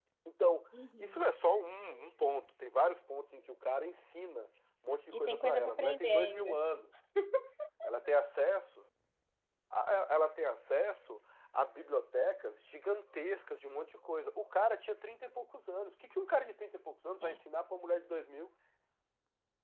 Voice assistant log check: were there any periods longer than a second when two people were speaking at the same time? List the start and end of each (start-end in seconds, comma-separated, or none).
5.3-6.5